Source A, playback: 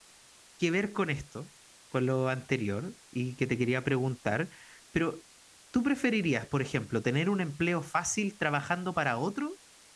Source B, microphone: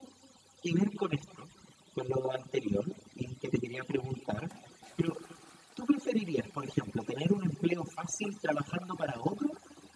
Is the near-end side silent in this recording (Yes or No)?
Yes